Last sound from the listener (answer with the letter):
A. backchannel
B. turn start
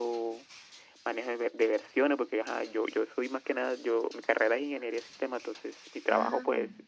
A